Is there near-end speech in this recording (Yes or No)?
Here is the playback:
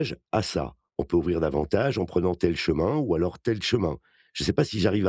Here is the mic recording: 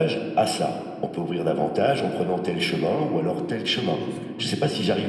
Yes